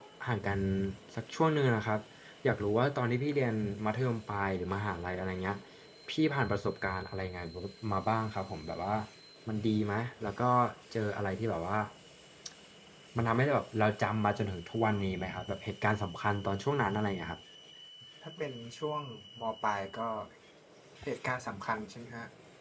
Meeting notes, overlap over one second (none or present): none